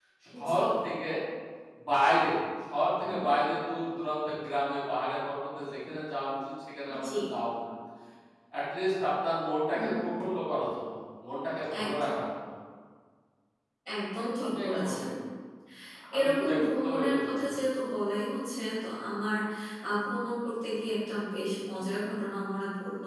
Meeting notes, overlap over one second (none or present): present